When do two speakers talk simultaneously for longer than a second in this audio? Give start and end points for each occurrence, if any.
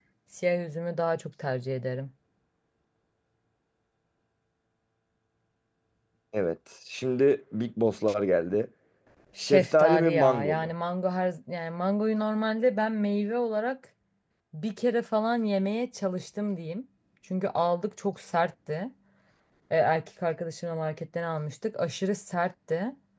9.4-10.7

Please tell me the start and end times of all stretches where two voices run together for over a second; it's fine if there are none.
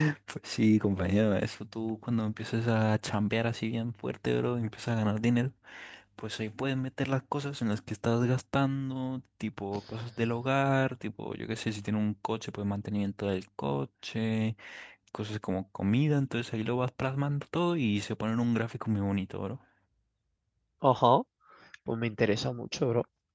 none

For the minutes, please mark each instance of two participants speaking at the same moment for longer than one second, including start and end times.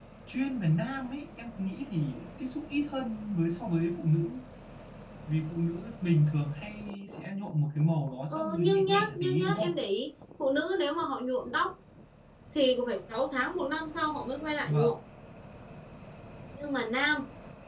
8.3-9.7

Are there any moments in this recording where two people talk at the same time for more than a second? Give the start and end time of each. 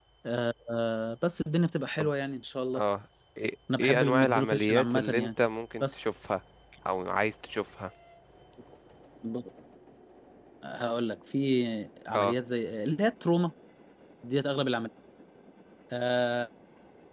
3.8-5.3

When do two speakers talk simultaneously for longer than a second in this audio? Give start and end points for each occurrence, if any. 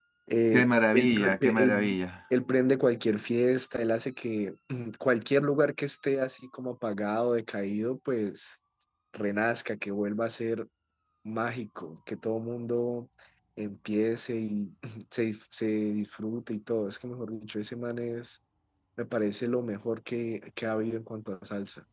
0.5-1.9

